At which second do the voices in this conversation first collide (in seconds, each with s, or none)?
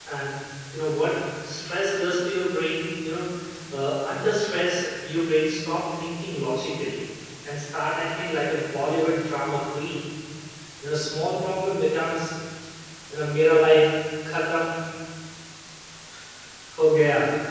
none